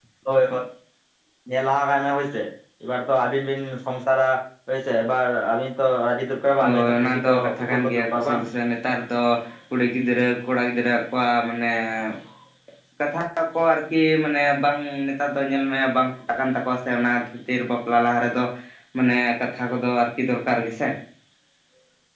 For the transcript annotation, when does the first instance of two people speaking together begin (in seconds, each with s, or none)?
6.6 s